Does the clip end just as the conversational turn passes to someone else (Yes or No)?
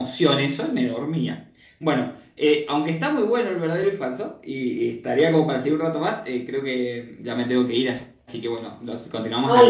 Yes